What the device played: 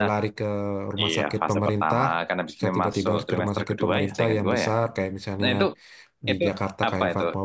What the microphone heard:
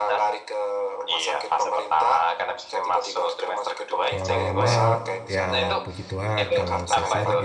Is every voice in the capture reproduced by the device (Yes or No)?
No